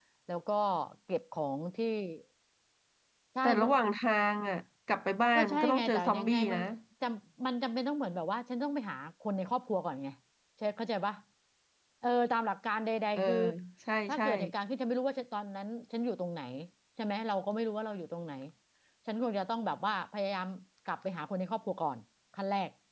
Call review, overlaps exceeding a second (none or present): present